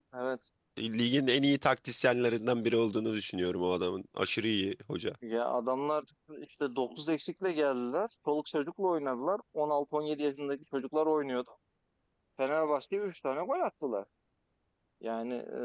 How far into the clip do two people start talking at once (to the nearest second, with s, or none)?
none